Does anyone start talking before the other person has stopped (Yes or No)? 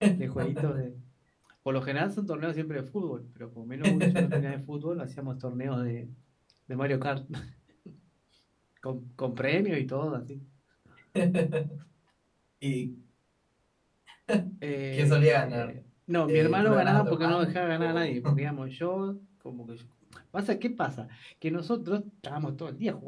Yes